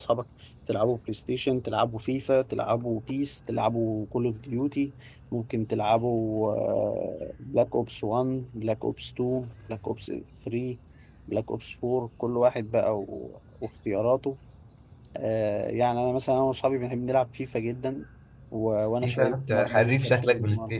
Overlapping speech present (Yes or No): Yes